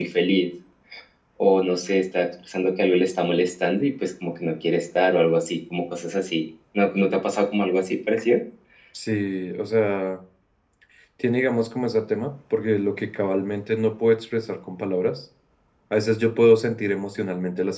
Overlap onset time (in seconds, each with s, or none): none